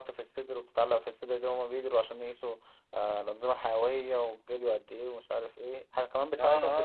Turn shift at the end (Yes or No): Yes